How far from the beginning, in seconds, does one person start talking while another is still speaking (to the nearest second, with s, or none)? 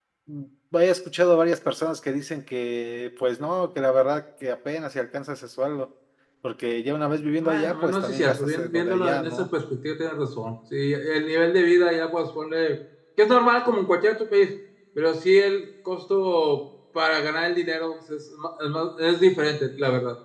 7 s